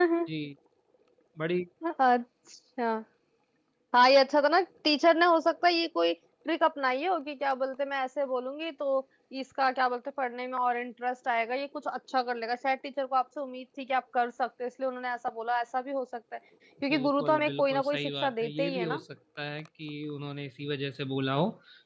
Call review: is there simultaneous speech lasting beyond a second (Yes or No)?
Yes